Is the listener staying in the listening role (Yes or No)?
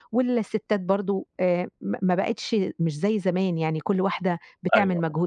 Yes